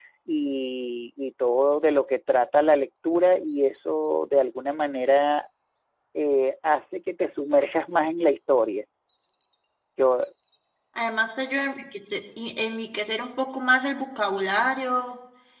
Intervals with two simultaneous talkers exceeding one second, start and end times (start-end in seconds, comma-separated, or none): none